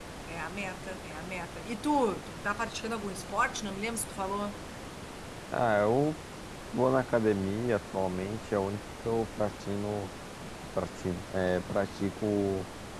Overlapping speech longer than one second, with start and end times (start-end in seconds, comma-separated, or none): none